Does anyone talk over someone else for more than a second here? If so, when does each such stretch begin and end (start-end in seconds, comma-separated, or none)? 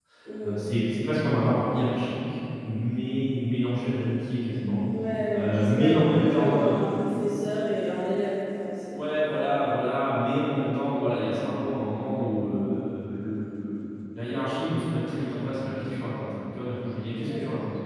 5.3-6.8